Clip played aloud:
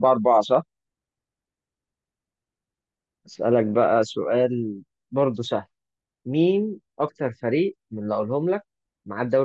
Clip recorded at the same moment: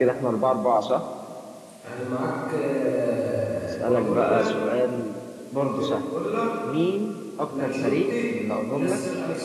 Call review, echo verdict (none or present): present